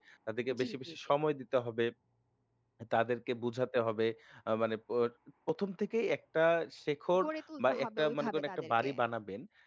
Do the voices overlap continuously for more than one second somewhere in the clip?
Yes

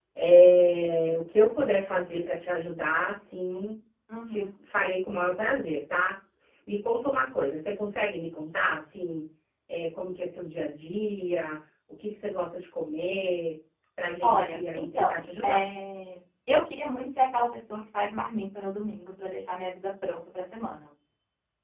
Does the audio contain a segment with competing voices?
Yes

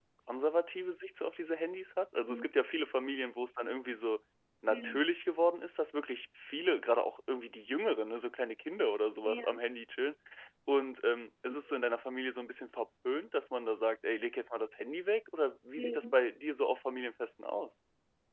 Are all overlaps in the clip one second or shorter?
Yes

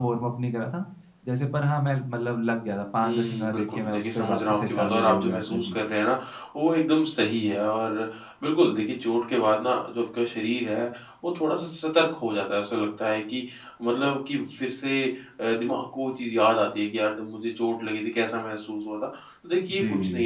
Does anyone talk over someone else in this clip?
Yes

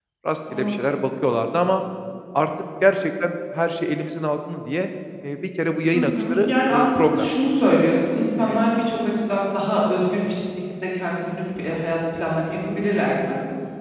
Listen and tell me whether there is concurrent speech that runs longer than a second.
Yes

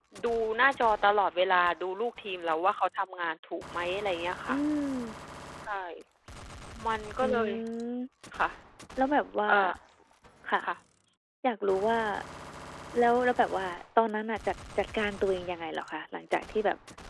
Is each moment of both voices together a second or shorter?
Yes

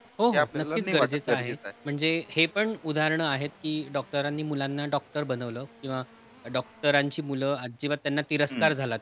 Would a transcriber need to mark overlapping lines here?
Yes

